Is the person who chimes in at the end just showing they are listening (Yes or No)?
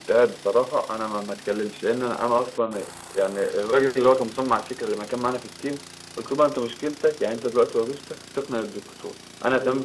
Yes